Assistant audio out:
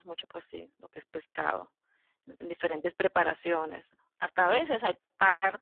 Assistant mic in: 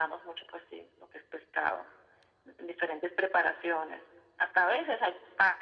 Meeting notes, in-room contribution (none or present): none